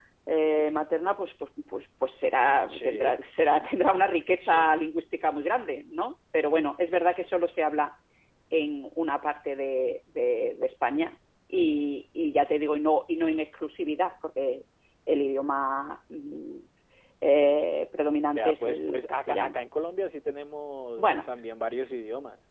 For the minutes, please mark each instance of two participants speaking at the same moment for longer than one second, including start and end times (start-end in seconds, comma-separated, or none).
18.3-19.5